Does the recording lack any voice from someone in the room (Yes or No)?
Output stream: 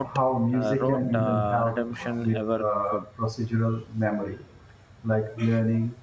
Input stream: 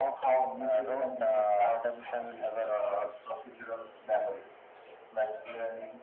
Yes